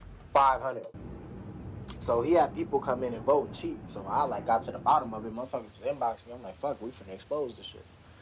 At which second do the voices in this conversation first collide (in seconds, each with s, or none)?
none